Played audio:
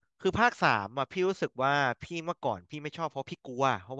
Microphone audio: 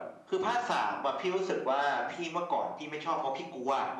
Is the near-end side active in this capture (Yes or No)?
No